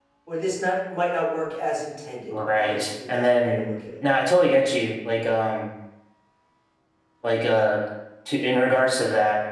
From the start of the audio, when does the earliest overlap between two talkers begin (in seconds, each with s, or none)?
2.3 s